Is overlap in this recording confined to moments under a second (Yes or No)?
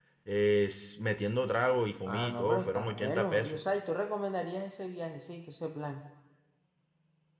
No